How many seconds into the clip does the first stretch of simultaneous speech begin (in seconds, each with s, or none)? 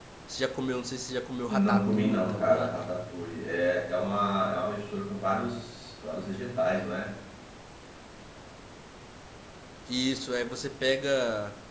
1.5 s